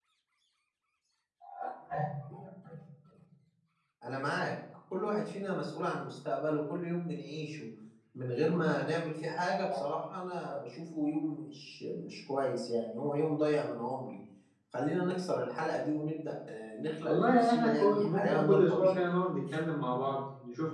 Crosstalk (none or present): present